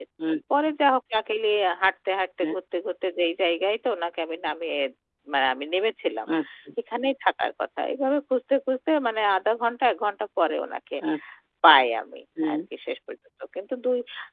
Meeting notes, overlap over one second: none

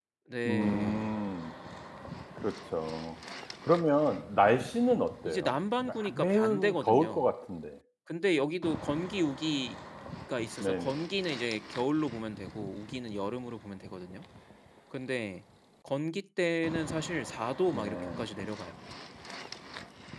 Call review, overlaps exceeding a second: present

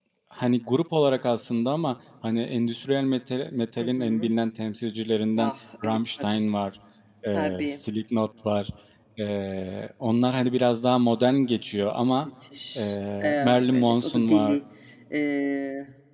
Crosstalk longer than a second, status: present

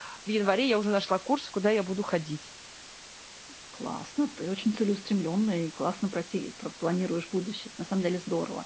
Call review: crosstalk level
none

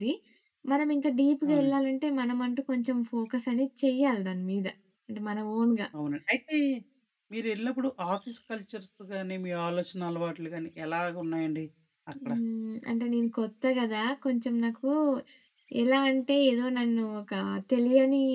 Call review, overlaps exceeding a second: none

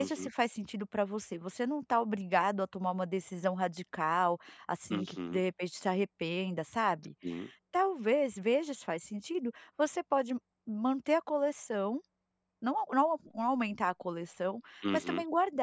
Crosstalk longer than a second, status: none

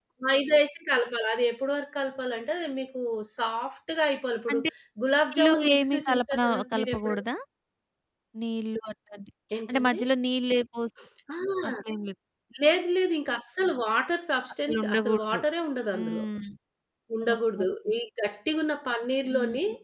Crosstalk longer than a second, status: present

